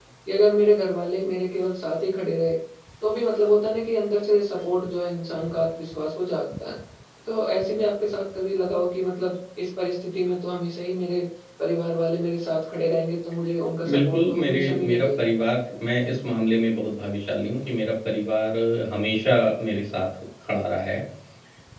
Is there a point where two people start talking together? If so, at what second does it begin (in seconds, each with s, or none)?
13.8 s